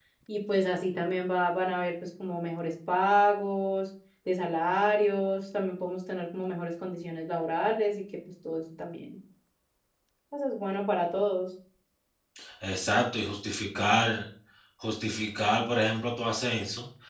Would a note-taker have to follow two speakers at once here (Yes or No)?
No